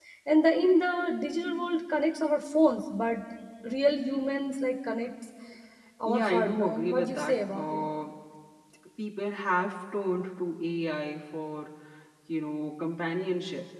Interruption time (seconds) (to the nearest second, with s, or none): 6 s